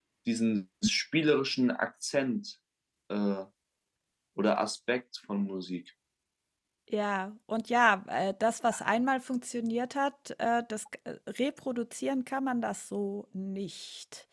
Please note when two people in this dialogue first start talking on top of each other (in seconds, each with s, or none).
none